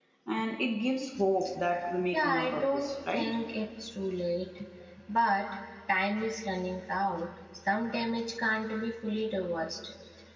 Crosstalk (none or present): present